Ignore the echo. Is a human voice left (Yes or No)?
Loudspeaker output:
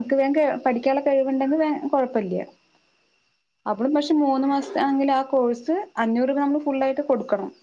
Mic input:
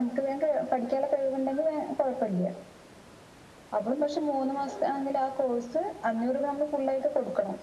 No